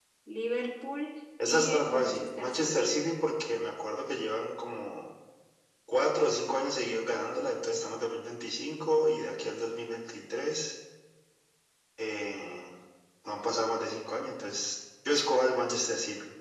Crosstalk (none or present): present